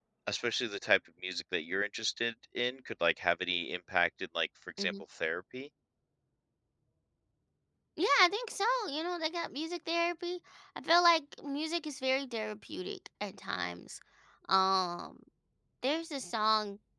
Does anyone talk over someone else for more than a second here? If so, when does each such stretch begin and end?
none

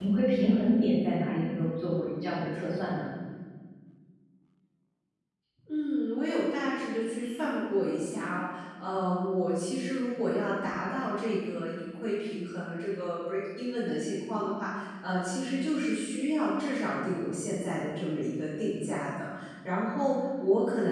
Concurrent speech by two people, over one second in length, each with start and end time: none

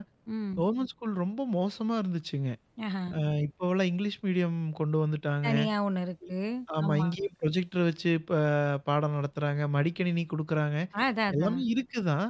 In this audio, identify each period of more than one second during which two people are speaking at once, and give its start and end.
none

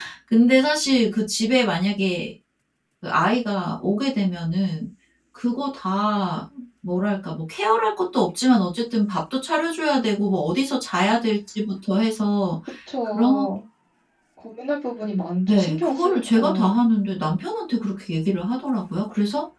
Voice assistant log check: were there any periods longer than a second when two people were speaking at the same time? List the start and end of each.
15.5-16.7

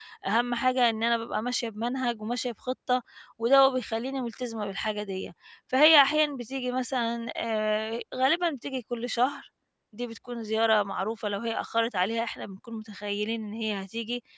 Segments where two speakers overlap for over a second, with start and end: none

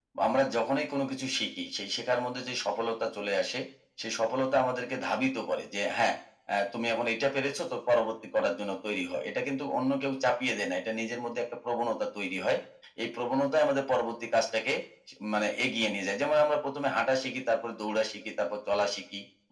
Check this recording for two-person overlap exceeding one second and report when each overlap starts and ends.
none

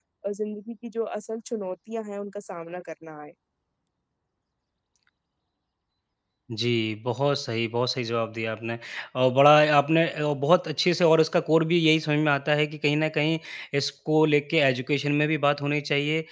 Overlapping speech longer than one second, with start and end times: none

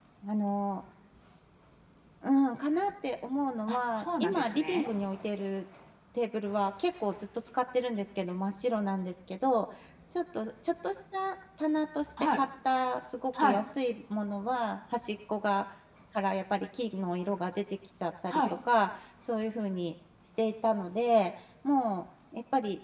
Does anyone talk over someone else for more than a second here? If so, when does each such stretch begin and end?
3.7-4.9

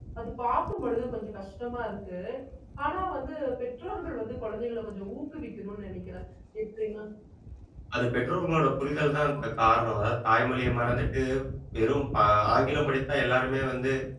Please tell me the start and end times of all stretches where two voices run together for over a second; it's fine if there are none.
none

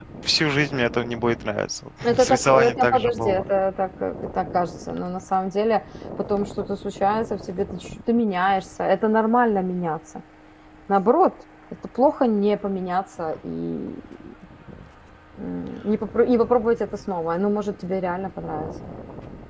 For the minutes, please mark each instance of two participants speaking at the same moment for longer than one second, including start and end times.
2.0-3.4

